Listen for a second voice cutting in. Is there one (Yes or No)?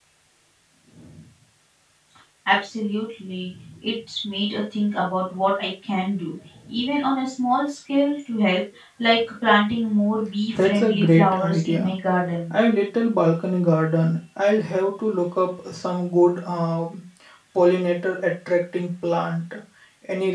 Yes